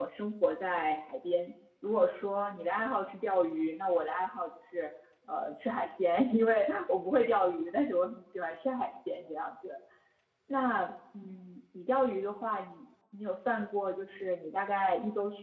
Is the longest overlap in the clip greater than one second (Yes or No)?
No